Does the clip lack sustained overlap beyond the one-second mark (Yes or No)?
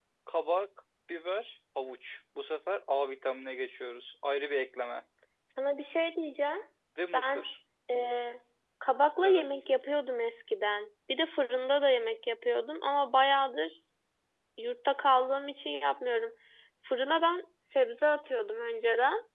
Yes